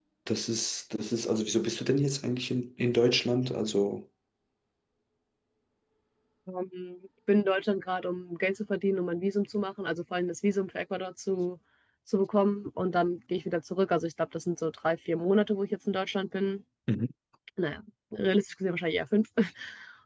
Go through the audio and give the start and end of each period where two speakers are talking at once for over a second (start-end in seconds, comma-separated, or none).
none